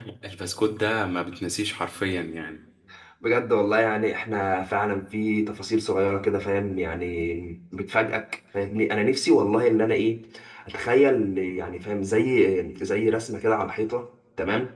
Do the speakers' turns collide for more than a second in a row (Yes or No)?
No